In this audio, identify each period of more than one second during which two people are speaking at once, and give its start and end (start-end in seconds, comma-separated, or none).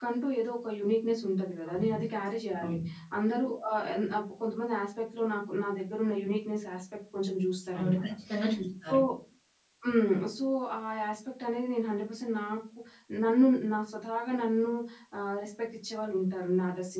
none